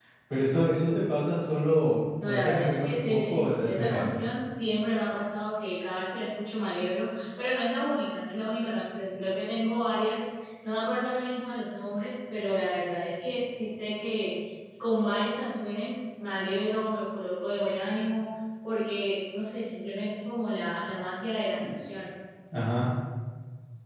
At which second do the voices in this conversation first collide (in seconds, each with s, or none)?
2.2 s